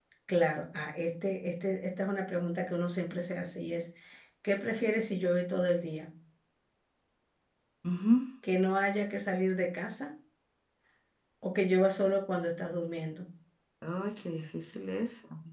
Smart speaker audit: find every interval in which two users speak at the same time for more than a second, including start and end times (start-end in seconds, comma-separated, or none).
none